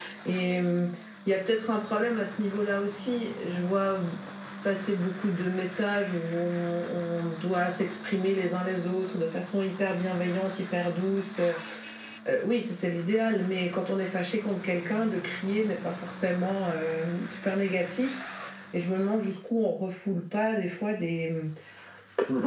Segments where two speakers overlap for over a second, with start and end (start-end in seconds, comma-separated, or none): none